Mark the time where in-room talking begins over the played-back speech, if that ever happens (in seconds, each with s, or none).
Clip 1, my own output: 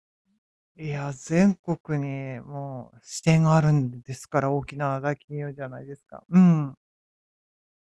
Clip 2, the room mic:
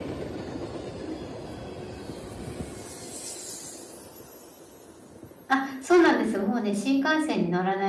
5.5 s